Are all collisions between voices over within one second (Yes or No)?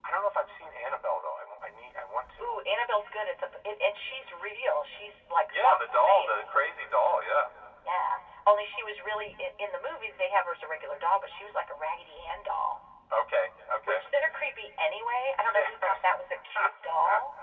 No